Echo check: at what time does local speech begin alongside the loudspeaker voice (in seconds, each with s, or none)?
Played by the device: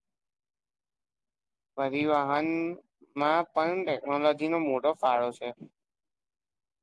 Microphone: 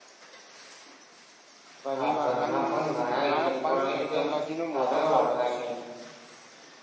1.9 s